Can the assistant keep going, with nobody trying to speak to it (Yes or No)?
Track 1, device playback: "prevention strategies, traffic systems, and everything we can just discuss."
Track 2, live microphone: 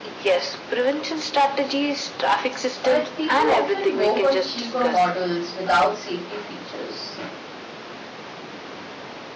No